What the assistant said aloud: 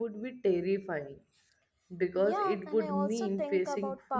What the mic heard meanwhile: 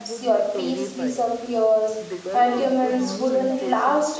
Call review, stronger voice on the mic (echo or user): user